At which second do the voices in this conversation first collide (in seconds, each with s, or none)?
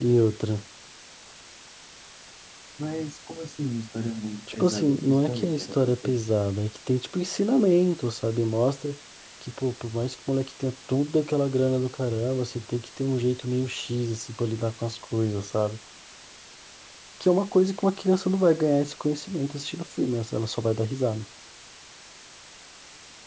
4.6 s